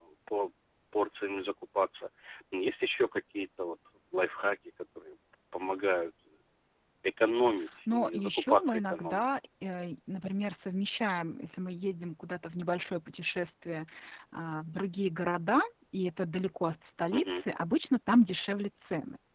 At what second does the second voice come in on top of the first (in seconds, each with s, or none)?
7.9 s